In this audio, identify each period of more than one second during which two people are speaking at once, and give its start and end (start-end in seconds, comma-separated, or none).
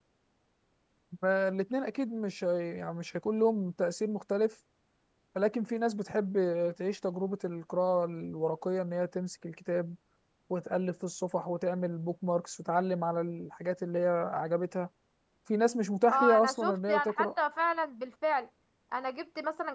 16.1-17.3